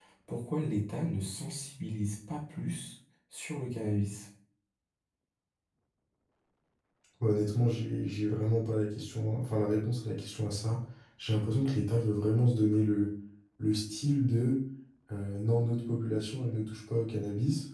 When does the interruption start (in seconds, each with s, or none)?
none